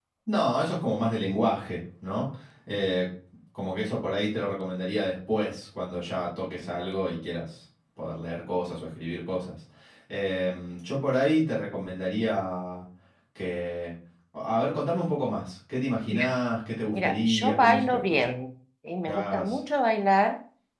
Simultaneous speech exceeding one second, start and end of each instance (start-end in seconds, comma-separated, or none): 16.9-18.2